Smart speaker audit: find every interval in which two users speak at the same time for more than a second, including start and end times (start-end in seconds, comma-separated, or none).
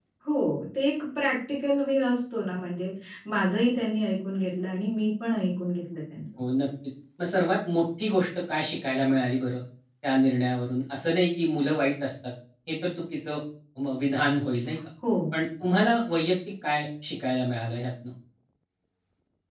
none